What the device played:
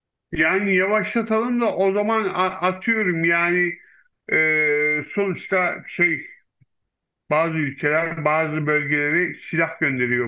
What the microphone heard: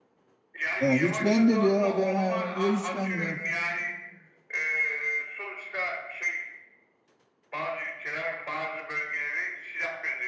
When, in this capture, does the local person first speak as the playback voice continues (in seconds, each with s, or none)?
0.8 s